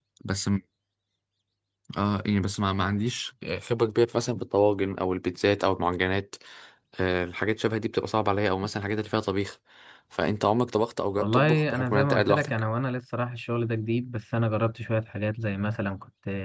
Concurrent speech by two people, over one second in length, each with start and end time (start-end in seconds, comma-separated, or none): 11.2-12.5